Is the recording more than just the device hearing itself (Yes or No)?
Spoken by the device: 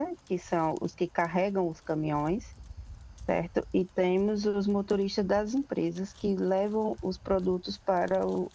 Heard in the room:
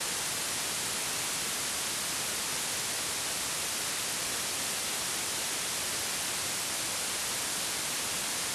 No